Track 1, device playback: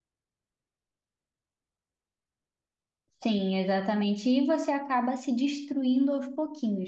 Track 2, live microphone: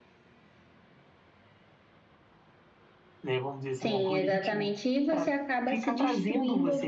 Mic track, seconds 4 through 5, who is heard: both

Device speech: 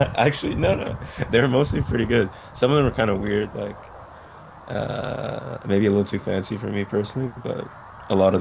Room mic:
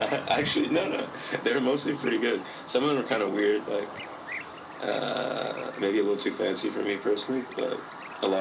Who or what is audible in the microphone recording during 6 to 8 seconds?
echo only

